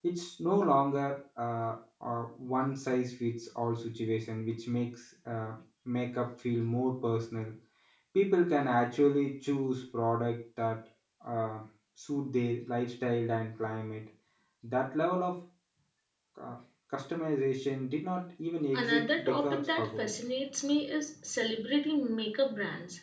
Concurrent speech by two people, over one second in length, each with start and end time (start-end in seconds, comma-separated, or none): 18.7-20.1